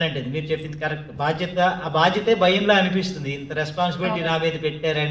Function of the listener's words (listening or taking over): listening